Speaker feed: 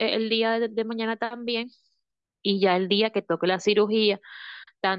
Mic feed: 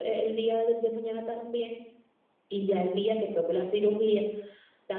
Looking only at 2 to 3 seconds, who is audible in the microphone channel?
echo only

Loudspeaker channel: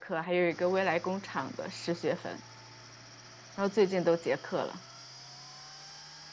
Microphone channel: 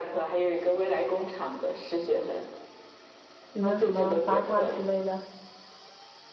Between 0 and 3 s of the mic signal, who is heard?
echo only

